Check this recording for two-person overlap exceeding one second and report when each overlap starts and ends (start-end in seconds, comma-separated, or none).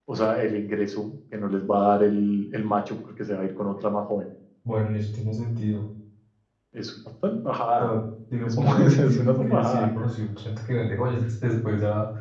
8.4-9.9